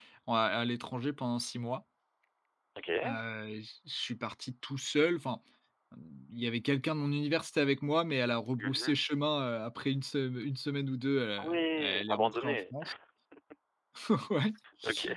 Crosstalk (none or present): present